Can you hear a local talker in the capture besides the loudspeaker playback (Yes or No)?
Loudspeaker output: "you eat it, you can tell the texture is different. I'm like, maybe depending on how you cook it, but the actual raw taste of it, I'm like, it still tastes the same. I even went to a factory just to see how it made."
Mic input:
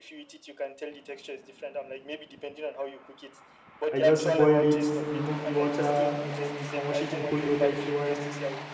Yes